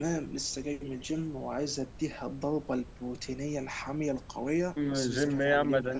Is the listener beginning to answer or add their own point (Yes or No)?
Yes